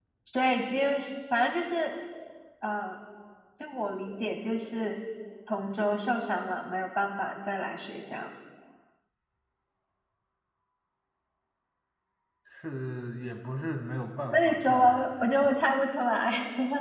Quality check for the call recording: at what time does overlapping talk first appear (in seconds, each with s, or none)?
14.3 s